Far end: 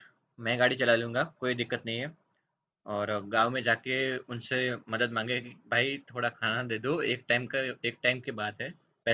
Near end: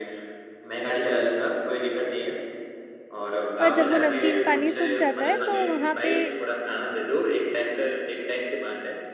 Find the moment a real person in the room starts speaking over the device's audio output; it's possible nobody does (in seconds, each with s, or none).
3.6 s